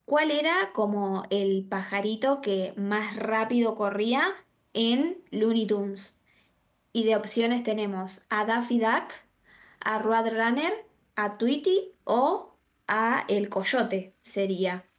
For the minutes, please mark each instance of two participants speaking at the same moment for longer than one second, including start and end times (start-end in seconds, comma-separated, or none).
none